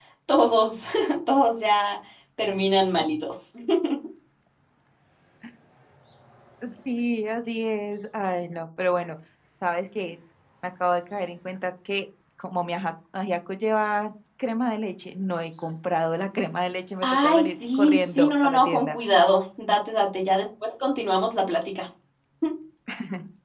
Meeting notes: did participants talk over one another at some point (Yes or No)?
Yes